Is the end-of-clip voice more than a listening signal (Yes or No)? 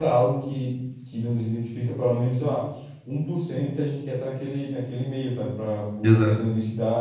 No